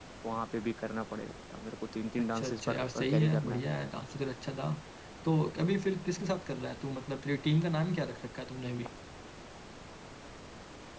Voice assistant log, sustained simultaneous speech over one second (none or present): present